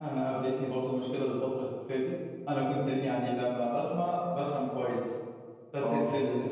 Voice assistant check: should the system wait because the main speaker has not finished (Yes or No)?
Yes